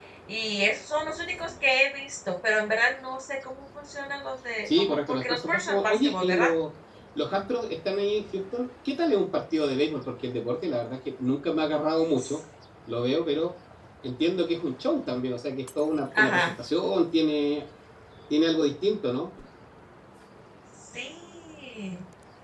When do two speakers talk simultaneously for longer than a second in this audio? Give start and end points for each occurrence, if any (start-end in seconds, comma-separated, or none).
4.7-6.5